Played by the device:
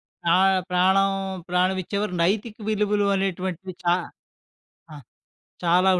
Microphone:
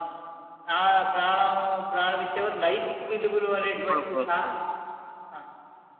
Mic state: both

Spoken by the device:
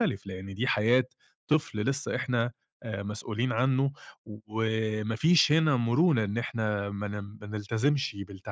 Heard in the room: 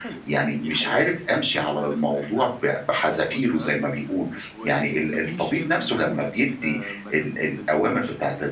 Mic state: both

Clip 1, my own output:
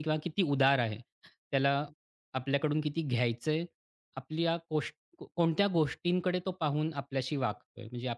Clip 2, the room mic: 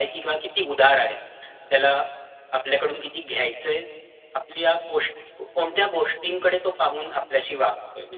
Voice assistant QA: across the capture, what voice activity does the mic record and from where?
echo only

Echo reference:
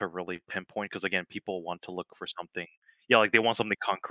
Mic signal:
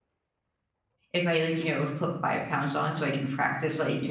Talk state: user only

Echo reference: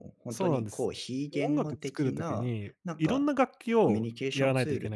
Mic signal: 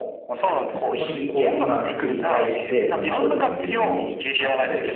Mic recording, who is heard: both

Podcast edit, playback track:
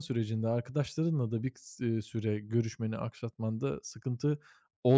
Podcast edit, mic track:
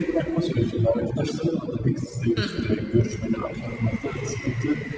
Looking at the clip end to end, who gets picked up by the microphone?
both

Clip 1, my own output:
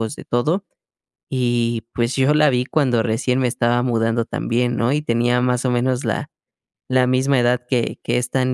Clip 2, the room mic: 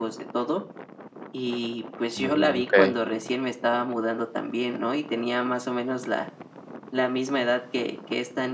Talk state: both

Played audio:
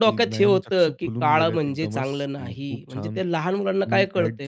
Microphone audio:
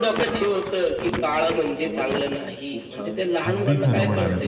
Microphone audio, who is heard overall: both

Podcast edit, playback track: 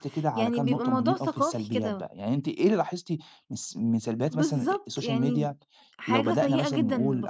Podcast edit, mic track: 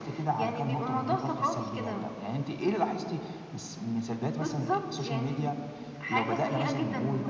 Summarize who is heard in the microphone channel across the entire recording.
echo only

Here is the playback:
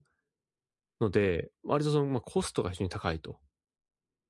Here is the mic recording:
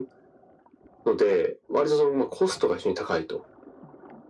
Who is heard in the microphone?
echo only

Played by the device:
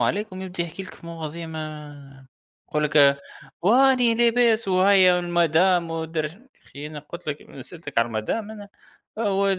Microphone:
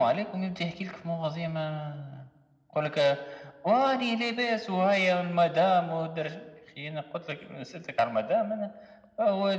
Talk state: echo only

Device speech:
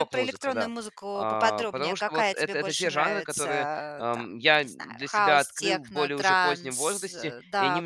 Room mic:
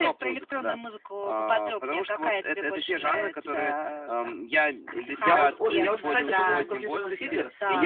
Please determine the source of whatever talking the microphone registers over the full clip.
both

